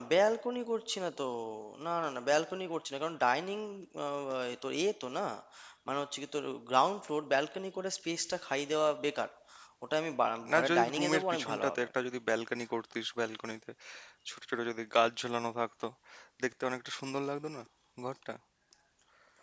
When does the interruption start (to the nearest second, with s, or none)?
11 s